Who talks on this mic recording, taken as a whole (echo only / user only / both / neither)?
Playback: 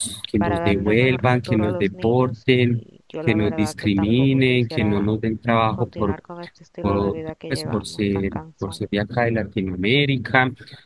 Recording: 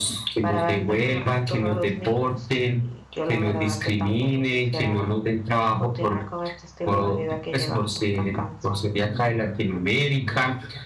echo only